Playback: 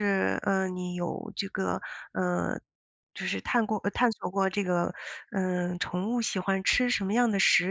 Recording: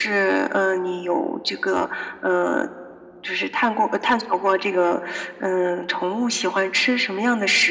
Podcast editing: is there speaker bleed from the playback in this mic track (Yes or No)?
Yes